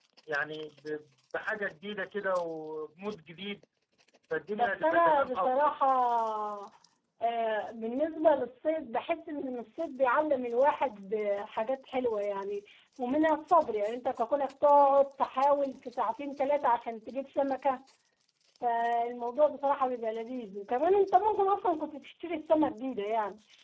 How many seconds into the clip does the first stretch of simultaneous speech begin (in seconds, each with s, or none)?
4.5 s